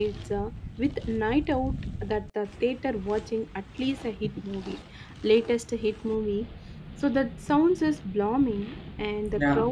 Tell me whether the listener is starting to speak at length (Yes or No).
No